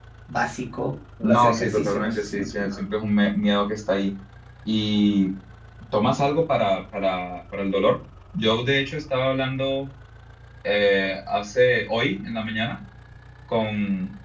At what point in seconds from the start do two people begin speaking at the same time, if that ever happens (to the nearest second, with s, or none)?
1 s